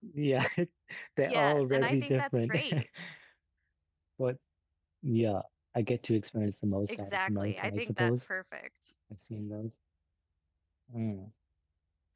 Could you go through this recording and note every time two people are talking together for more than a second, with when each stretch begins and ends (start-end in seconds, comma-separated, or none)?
1.3-2.5, 6.9-8.1